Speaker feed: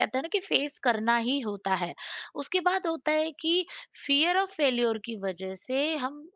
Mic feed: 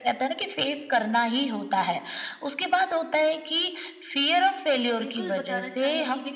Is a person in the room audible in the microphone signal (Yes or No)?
Yes